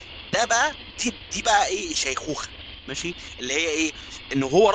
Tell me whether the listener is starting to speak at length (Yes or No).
No